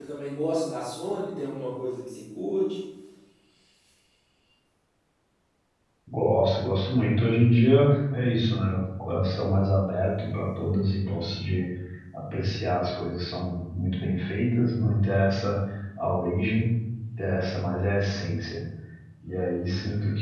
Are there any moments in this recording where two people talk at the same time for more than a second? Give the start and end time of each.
none

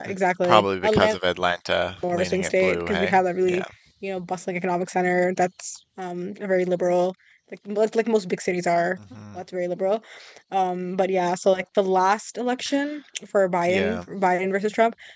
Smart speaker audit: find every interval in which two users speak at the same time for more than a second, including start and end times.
2.1-3.6

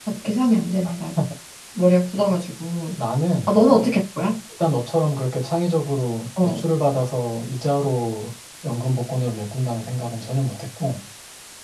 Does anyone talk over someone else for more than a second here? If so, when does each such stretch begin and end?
none

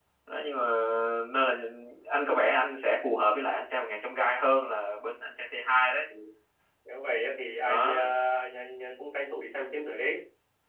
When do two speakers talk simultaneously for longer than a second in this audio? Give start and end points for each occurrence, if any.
none

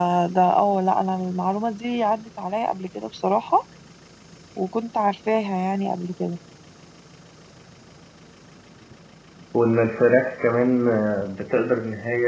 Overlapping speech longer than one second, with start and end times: none

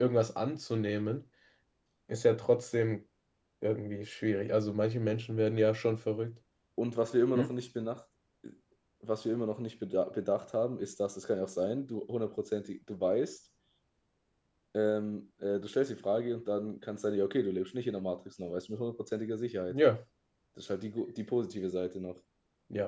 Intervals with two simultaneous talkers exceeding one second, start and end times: none

